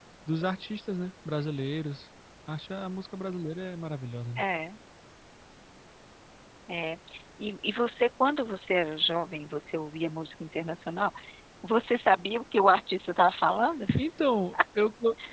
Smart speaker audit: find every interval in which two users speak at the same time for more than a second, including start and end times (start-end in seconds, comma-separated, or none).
none